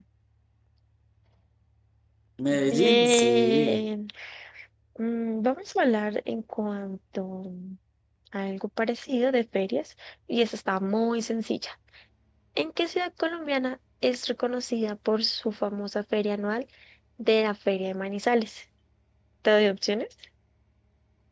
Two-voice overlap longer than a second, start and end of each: 2.5-3.8

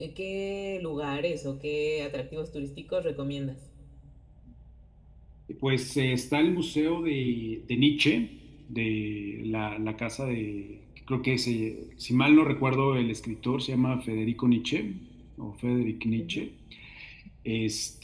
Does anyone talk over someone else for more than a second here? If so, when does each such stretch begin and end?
none

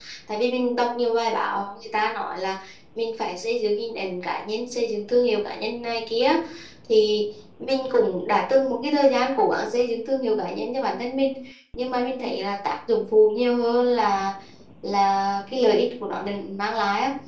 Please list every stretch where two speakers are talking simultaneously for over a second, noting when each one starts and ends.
none

